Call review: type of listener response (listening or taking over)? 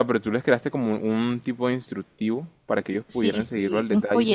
taking over